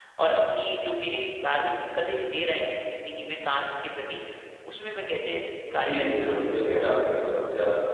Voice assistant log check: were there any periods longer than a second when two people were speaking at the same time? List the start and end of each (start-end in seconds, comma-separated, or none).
5.8-7.0